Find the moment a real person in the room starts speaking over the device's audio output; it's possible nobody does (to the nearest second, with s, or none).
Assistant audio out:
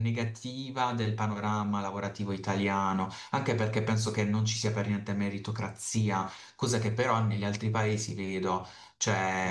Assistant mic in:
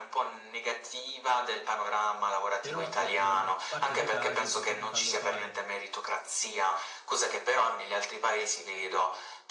3 s